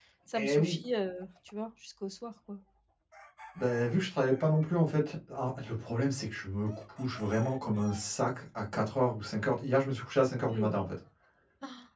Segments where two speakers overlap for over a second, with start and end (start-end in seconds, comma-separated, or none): none